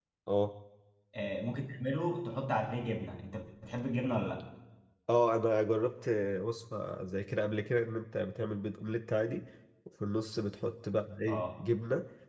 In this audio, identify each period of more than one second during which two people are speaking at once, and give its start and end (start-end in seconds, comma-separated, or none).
none